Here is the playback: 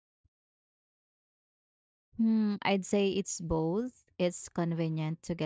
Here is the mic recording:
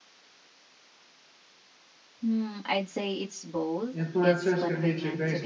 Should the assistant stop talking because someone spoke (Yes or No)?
Yes